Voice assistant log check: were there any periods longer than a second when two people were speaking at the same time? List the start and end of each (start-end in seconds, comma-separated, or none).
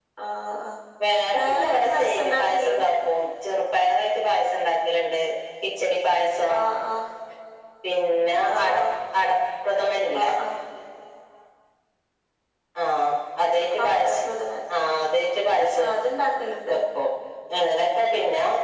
1.4-2.8